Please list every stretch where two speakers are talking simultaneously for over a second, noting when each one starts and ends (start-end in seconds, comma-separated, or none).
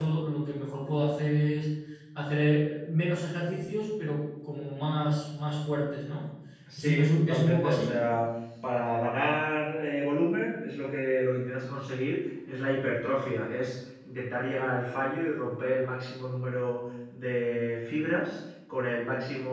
6.8-8.0